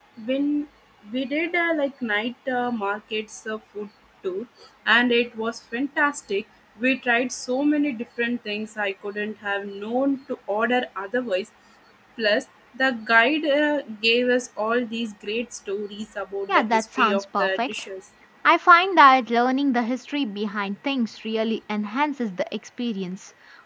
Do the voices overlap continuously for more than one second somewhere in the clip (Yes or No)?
Yes